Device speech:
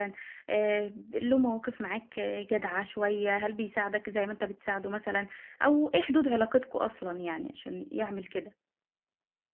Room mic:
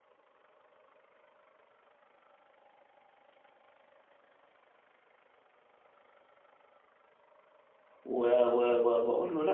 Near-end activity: present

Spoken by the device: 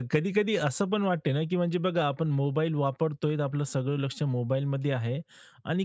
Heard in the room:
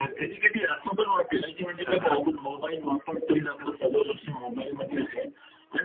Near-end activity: present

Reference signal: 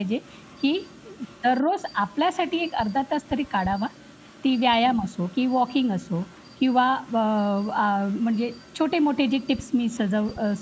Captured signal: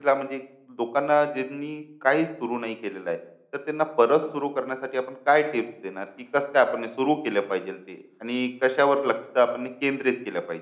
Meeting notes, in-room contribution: present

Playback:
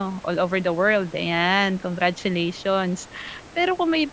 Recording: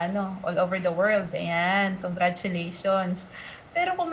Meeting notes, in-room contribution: none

